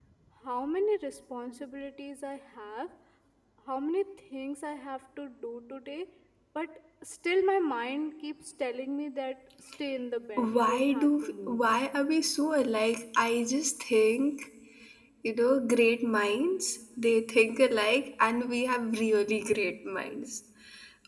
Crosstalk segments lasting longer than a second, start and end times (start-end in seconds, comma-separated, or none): 10.4-11.6